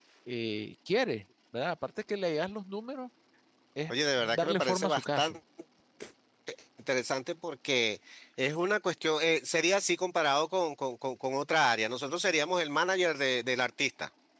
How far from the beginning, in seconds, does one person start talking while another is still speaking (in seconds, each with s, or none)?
3.9 s